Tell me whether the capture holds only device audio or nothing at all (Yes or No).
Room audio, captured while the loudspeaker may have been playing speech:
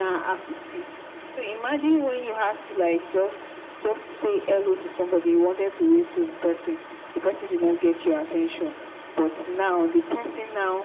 Yes